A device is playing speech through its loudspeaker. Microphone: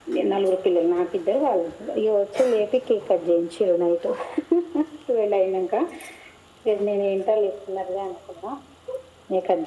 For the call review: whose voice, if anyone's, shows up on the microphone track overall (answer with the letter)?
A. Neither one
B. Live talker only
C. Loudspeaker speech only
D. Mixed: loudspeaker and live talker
C